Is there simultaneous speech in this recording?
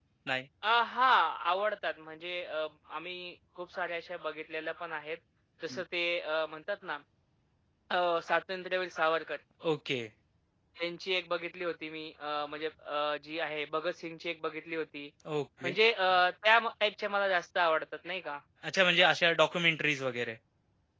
No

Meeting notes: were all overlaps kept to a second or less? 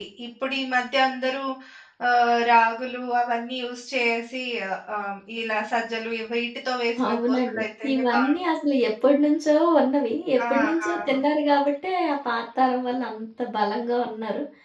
No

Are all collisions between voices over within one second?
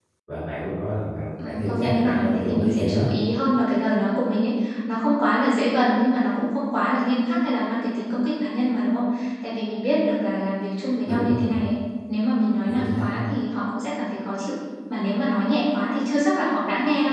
No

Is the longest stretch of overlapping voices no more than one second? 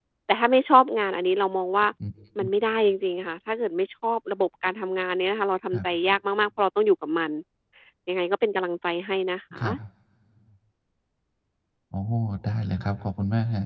Yes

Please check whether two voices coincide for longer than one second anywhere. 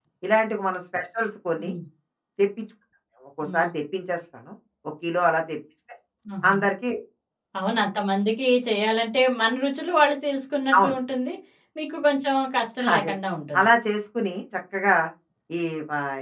No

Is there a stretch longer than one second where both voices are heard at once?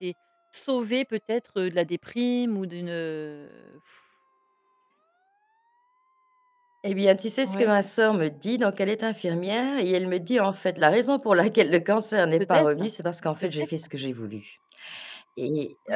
No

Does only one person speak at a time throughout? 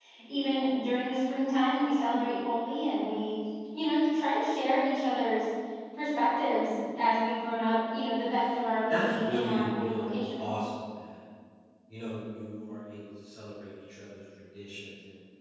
No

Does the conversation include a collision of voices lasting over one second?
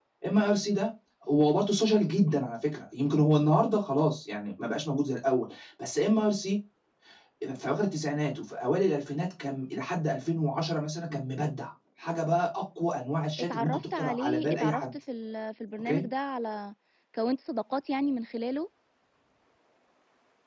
Yes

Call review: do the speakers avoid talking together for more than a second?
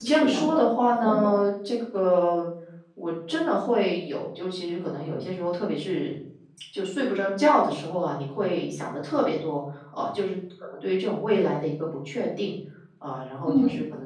No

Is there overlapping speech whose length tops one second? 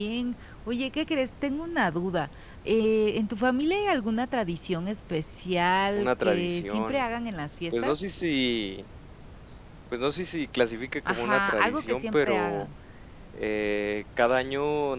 Yes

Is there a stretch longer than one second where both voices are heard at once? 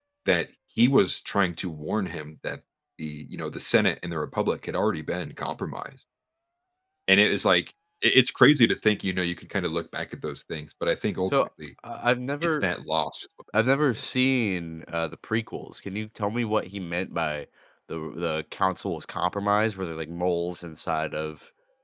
No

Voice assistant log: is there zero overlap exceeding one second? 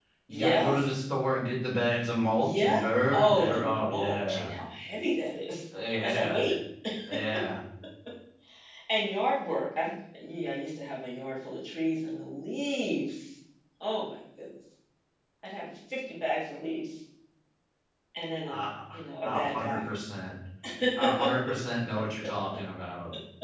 No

